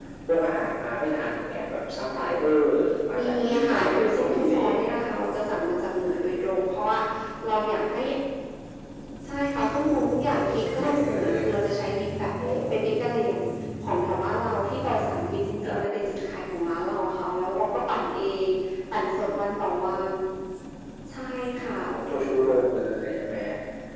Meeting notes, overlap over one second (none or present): present